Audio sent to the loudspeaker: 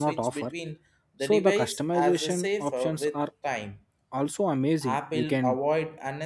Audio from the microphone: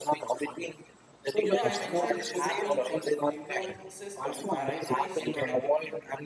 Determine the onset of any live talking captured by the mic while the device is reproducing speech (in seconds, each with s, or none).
1.4 s